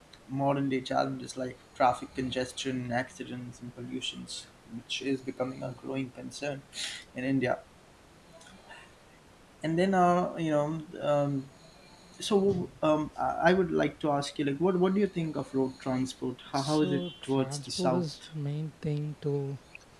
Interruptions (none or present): present